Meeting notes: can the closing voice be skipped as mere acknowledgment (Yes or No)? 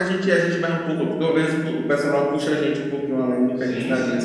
No